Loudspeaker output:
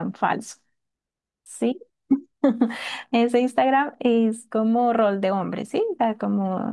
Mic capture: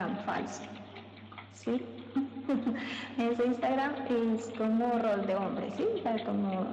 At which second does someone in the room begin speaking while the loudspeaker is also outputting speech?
none

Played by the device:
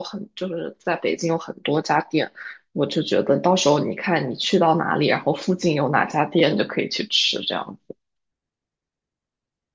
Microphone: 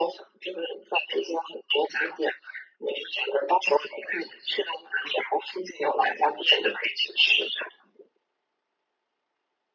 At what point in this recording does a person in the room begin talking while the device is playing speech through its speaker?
none

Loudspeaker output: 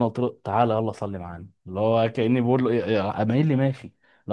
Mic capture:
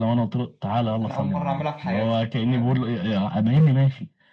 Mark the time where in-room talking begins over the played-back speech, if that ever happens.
1.0 s

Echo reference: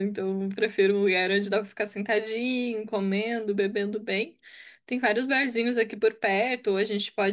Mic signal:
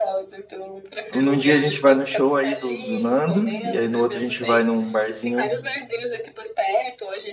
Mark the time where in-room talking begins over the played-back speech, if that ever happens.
1.1 s

